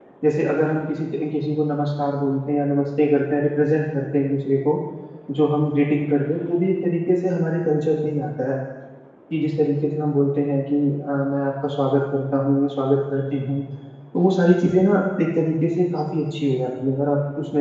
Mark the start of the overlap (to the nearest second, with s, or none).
none